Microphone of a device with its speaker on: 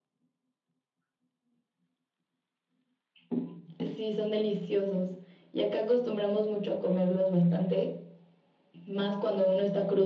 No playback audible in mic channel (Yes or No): No